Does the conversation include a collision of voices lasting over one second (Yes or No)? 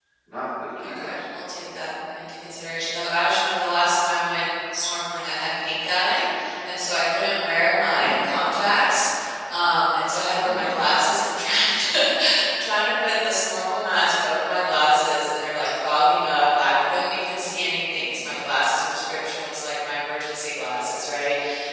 No